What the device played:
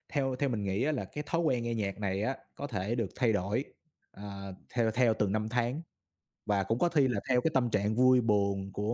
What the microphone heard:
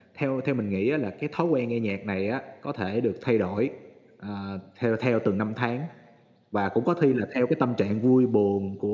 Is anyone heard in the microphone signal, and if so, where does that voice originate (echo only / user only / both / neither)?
echo only